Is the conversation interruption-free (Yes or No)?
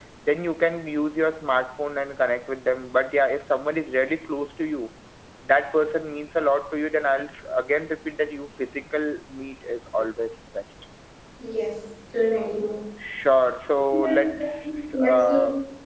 No